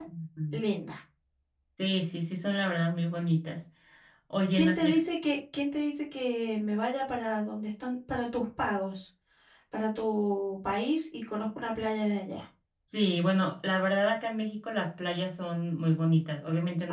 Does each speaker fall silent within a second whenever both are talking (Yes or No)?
Yes